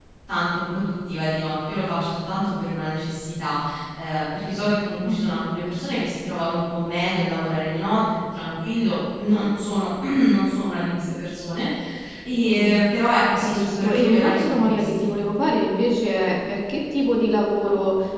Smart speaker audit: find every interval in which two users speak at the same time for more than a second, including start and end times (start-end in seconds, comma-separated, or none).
13.4-15.1